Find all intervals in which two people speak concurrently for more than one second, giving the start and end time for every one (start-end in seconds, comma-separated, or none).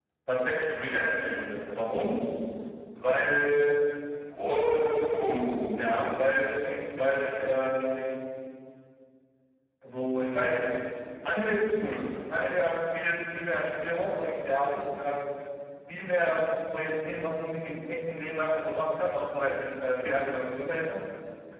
none